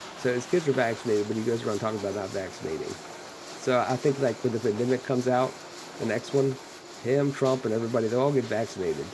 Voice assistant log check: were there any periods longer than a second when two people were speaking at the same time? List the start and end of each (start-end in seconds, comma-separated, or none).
none